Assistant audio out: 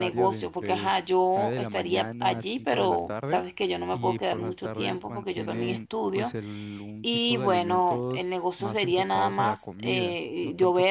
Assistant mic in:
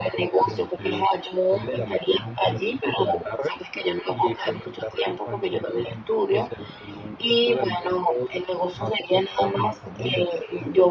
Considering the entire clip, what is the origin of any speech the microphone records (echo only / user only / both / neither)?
echo only